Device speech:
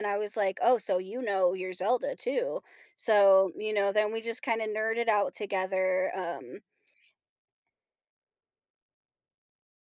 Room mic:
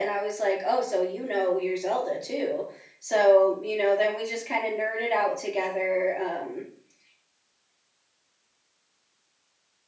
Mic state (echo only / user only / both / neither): echo only